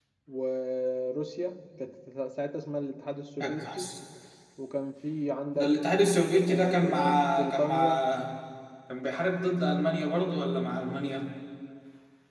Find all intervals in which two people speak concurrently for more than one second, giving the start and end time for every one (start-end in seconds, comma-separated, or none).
6.5-8.1